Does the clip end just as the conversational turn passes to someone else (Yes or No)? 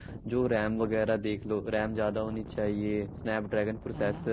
No